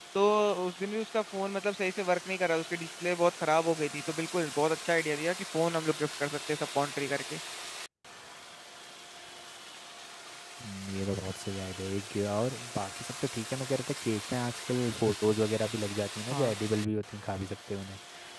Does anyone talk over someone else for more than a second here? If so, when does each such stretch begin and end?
none

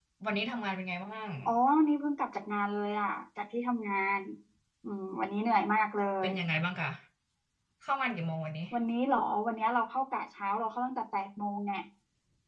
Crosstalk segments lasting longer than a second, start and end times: none

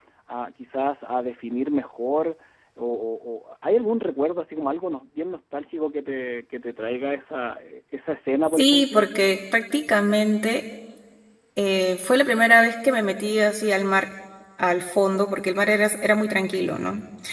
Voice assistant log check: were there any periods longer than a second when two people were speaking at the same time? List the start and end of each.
none

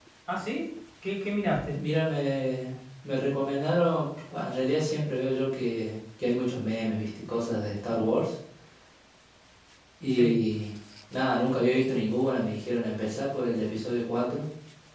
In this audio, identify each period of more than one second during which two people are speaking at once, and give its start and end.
none

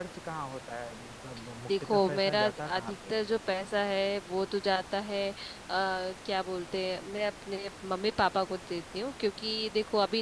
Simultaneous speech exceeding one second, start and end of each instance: 1.7-3.2

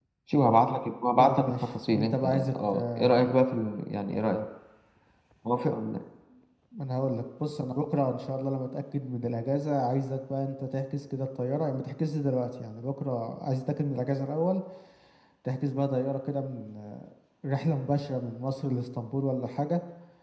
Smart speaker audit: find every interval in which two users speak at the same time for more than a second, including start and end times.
1.2-3.3

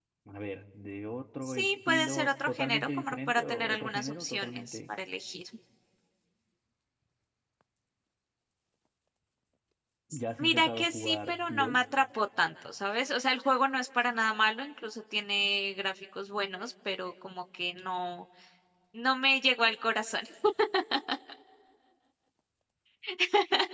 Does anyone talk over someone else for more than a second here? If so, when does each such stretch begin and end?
1.4-4.9, 10.4-11.8

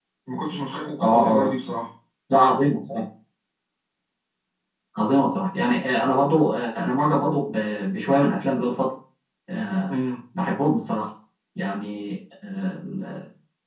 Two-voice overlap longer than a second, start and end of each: none

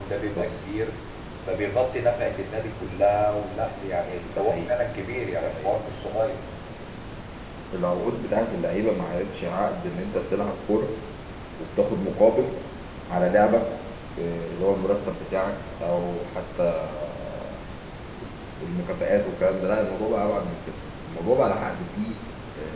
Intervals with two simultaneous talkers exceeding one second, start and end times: none

